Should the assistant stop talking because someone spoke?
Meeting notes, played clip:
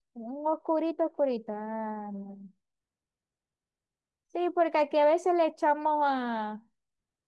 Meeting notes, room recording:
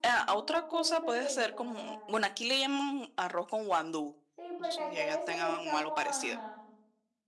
Yes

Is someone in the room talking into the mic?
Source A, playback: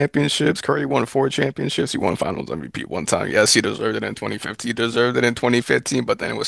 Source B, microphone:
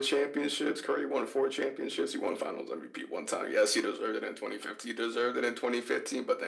No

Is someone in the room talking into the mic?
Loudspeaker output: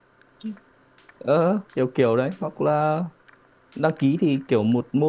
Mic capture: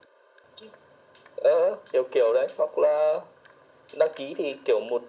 No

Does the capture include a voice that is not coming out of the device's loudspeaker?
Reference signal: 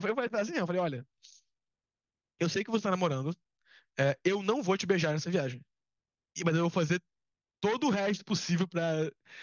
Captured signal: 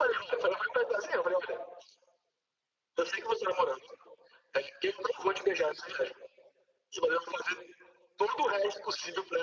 No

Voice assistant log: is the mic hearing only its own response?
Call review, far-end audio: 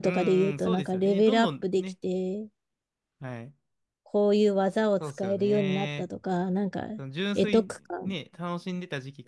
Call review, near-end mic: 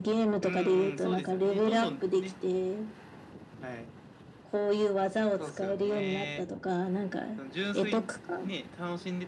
Yes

